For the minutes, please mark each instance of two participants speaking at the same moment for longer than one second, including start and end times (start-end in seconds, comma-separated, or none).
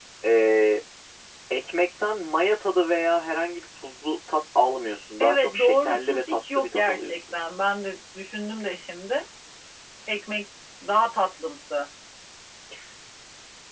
5.2-7.3